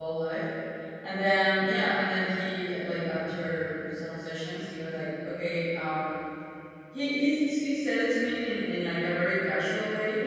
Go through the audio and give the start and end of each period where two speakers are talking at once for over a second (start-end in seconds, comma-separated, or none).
none